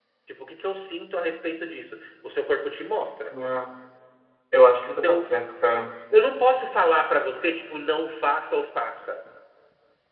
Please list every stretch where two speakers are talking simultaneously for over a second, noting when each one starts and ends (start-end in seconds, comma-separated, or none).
none